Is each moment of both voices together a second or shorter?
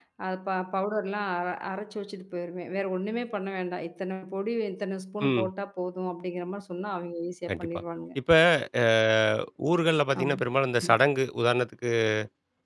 Yes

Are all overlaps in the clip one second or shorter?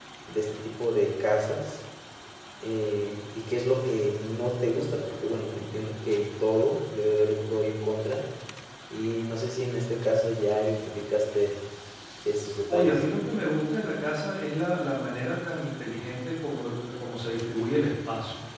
Yes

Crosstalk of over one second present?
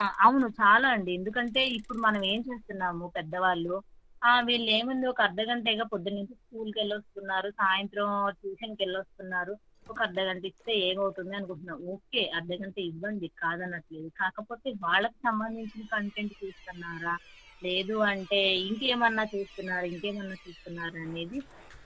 No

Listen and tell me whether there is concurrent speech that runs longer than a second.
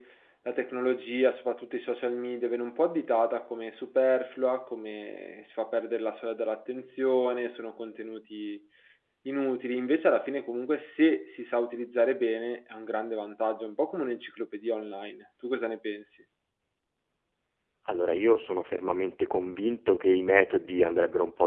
No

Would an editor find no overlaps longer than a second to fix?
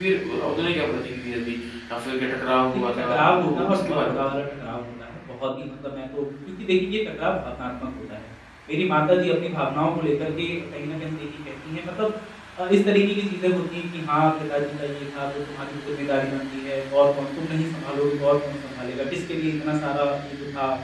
No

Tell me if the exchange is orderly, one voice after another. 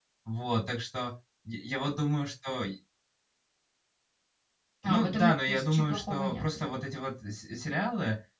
No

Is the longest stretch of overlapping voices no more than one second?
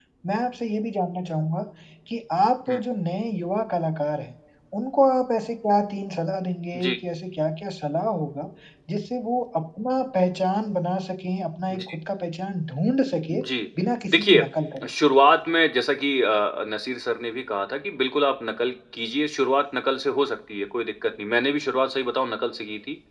Yes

